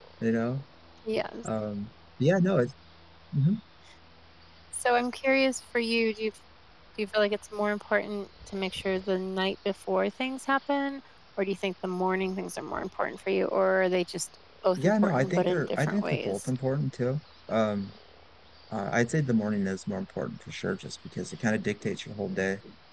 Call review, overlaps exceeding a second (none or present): present